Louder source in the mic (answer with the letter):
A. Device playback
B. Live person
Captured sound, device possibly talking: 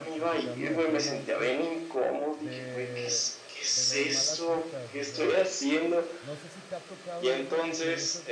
A